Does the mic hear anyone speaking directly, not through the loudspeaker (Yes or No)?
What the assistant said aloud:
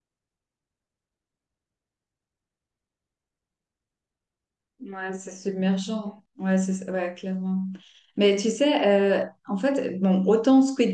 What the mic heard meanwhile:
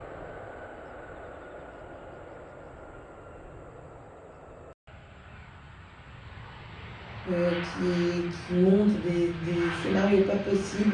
Yes